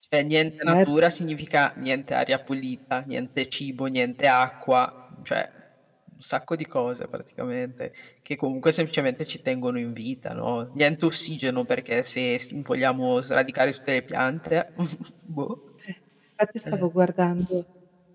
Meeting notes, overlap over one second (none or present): none